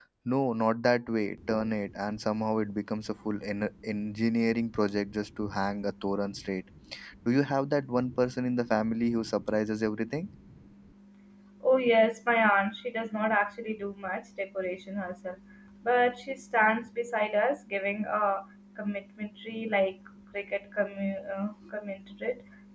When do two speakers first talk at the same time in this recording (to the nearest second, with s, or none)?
none